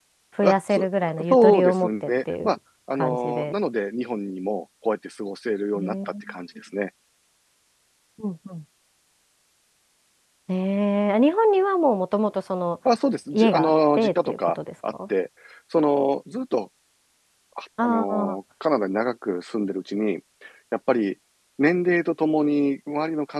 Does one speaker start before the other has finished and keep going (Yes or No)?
Yes